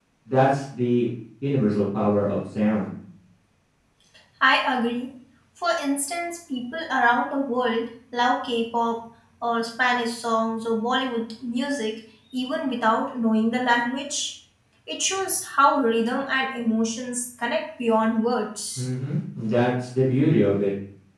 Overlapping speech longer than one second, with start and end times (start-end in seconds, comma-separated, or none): none